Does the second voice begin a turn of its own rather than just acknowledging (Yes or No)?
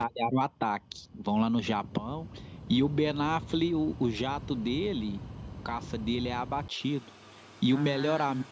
No